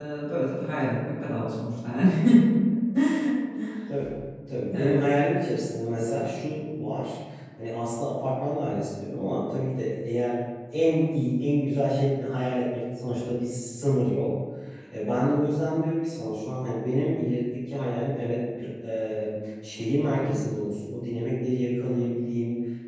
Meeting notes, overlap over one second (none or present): none